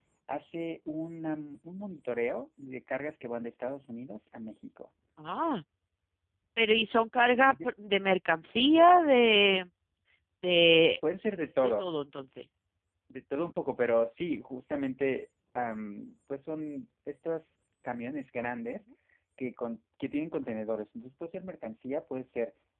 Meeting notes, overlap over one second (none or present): none